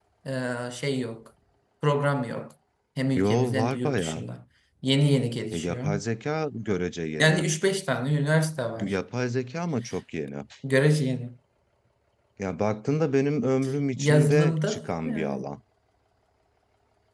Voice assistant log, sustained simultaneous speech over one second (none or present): present